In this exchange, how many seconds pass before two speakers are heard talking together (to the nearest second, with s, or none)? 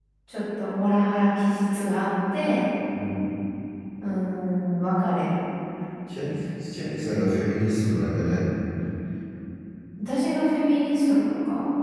none